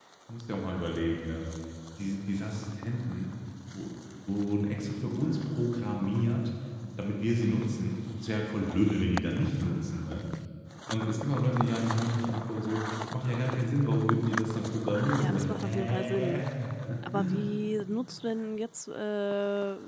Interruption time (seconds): 15.2 s

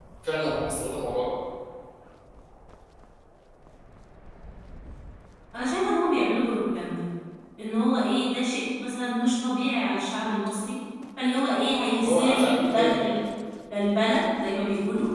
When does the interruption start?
12.0 s

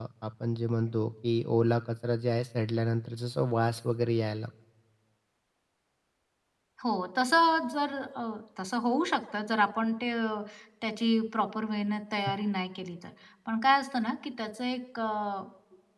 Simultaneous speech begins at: none

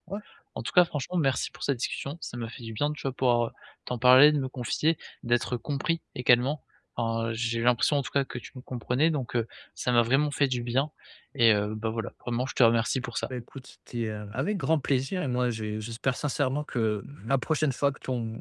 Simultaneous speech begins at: none

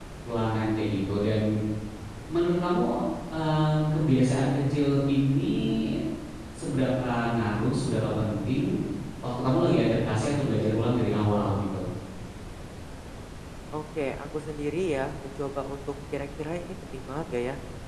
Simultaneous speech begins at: none

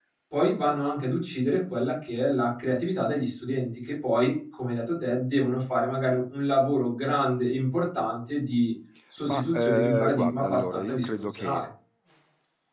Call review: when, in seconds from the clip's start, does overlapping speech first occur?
9.2 s

